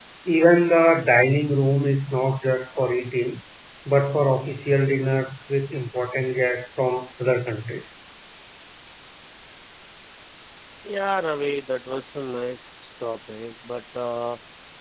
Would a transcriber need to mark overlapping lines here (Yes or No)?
No